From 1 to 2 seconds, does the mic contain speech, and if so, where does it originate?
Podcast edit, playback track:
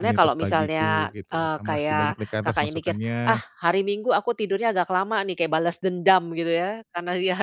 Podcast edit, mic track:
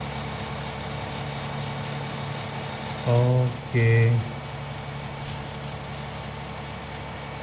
neither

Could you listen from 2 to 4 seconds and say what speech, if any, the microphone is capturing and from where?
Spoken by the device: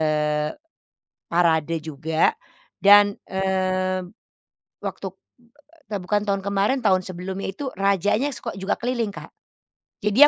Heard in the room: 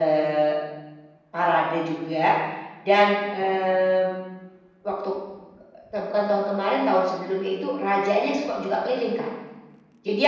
echo only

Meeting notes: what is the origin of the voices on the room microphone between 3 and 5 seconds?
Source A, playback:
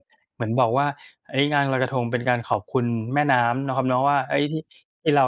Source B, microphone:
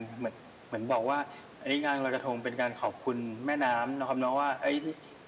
echo only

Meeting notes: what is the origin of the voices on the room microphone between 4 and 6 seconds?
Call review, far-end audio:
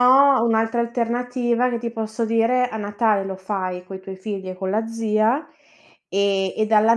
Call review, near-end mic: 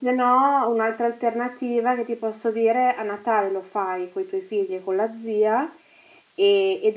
echo only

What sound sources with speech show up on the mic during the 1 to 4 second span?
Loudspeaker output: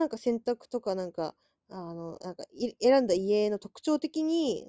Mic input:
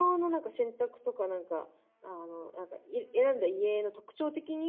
echo only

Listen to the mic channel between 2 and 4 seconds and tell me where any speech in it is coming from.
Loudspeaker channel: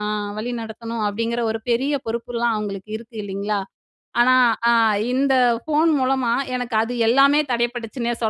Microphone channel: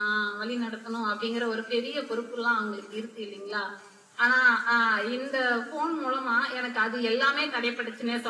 echo only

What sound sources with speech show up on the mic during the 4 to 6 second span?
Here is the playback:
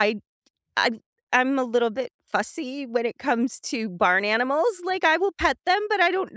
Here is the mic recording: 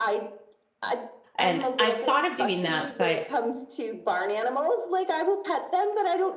echo only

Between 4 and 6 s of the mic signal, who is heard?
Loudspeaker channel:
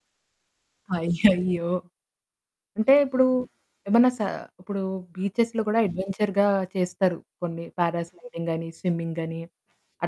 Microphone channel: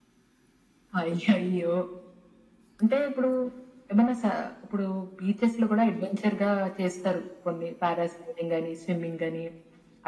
echo only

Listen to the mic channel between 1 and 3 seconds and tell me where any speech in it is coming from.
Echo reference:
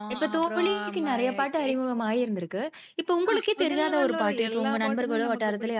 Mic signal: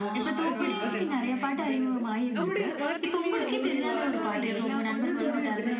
both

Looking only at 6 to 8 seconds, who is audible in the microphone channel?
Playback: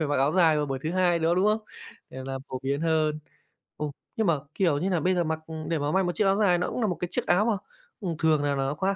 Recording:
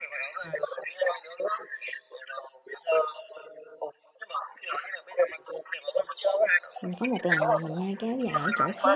both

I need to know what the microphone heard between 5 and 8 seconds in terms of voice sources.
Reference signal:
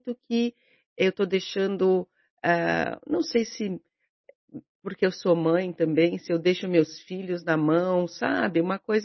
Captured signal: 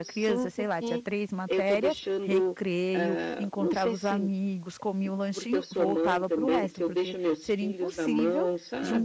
both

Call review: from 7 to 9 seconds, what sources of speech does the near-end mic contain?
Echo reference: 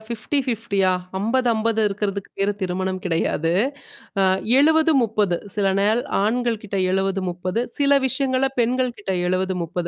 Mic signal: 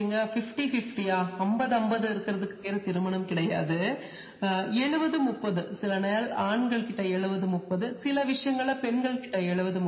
echo only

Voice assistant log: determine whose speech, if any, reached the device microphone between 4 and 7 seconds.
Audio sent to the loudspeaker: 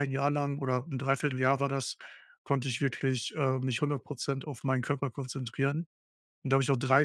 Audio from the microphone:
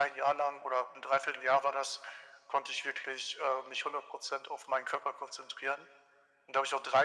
echo only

